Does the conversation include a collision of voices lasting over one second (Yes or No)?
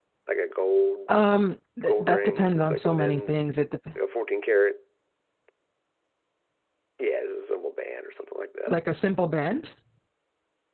Yes